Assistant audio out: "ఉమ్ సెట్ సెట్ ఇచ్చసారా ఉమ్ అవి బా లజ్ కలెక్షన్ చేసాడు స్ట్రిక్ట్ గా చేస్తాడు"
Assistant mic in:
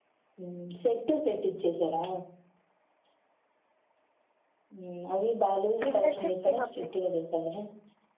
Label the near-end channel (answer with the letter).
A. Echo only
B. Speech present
B